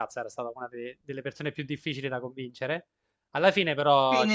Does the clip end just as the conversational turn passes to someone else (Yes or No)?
Yes